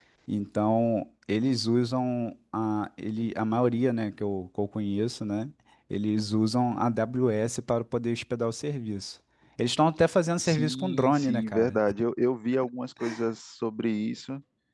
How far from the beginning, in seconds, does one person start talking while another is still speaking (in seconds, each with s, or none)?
10.4 s